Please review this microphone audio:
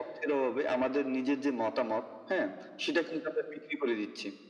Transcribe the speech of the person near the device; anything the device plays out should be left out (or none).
none